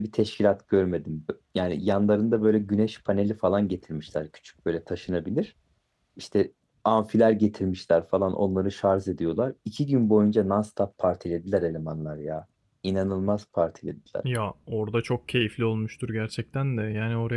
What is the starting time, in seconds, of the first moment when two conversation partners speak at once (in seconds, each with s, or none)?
none